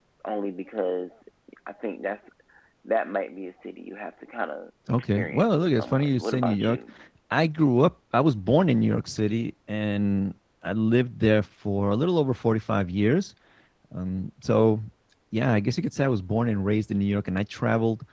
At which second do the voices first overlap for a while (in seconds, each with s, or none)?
4.9 s